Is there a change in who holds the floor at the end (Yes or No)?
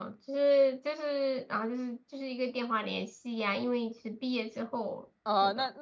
Yes